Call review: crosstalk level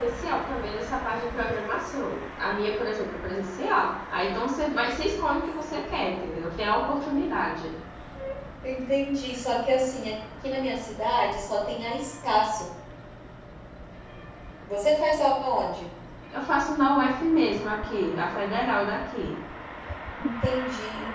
none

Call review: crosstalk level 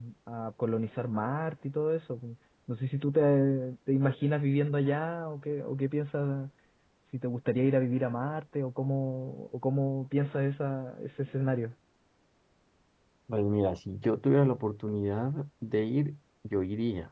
none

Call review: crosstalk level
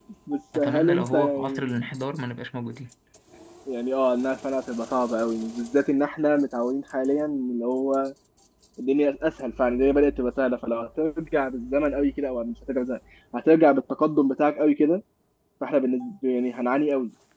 present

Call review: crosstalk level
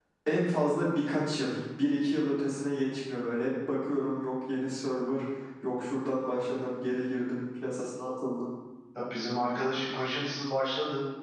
none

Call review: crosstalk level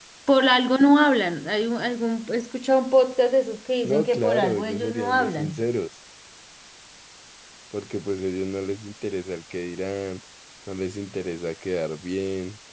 present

